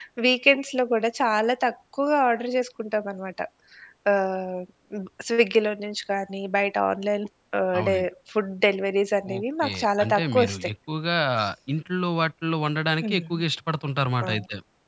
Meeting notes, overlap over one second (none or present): present